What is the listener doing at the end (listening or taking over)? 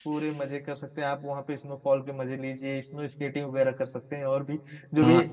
taking over